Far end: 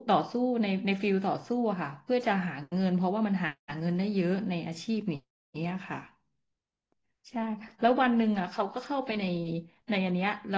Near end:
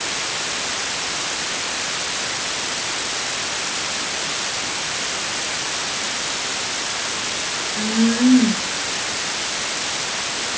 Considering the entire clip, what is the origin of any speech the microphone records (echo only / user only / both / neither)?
user only